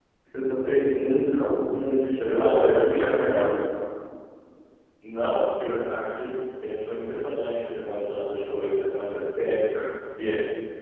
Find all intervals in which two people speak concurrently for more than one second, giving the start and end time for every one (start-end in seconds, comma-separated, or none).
2.2-3.5